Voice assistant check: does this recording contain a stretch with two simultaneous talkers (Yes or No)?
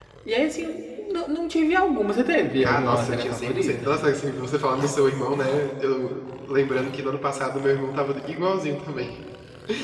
Yes